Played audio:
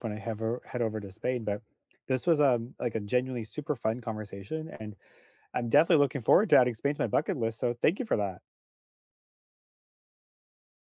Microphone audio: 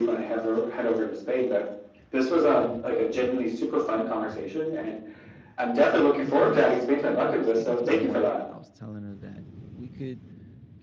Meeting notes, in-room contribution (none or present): present